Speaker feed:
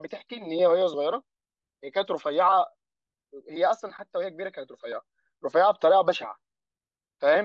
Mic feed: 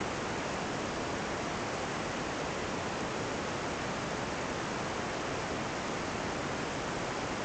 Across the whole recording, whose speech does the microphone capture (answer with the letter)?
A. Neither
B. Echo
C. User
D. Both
A